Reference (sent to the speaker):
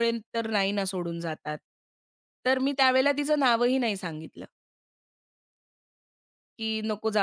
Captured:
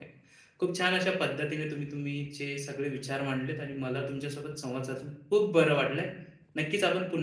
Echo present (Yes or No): No